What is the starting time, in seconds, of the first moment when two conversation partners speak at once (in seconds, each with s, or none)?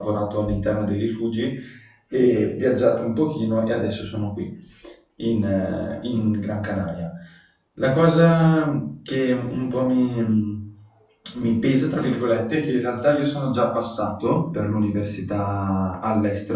none